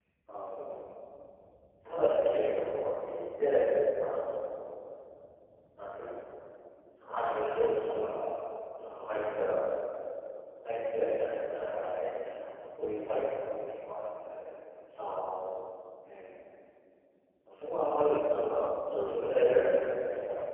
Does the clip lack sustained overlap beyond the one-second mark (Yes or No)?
Yes